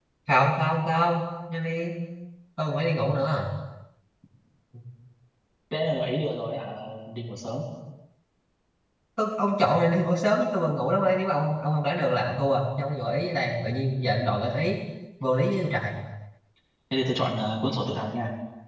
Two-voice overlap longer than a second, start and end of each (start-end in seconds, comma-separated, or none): none